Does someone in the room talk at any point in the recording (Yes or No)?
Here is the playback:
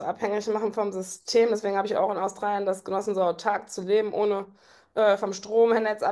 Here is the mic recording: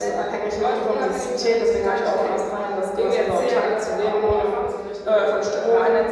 Yes